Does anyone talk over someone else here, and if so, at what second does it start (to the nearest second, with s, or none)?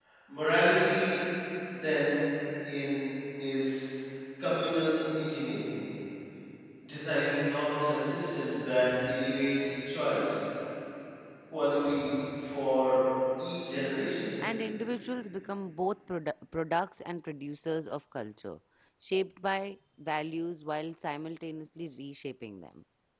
none